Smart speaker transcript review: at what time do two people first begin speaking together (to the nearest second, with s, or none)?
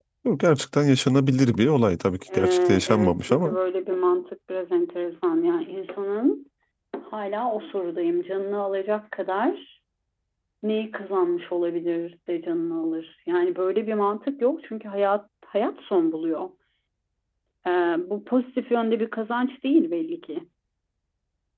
2 s